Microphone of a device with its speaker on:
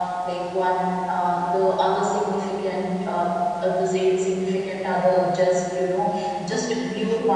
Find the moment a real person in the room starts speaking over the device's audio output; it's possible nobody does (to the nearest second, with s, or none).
6 s